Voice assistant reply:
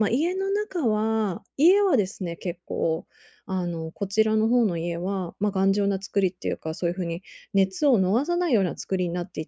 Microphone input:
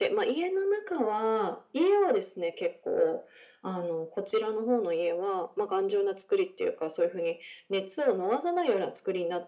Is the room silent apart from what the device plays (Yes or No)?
Yes